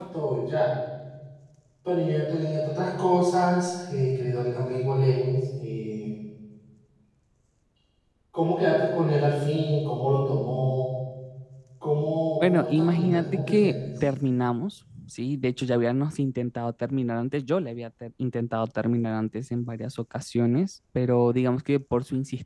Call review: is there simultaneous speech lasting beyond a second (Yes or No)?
Yes